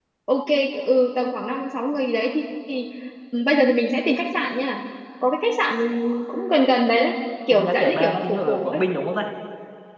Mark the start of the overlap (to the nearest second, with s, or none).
8 s